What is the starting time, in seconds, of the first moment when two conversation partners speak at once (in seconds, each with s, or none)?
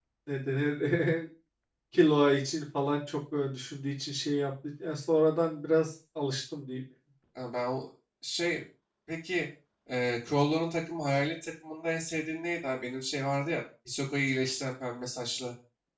none